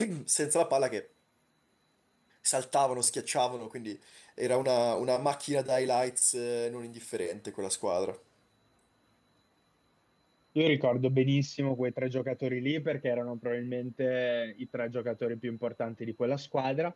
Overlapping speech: No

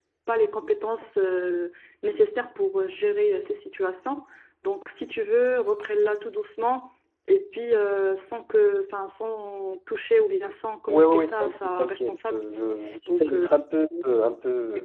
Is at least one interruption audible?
Yes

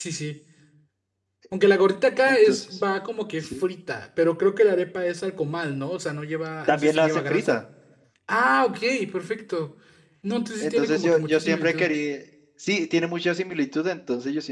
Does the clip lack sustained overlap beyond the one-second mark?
No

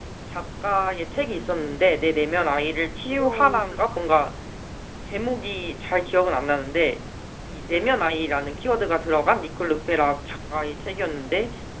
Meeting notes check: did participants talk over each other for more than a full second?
Yes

